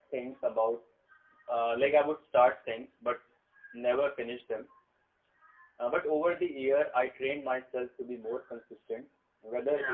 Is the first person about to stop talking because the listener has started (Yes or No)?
No